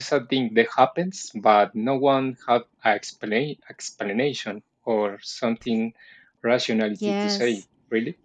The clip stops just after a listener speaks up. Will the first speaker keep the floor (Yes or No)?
No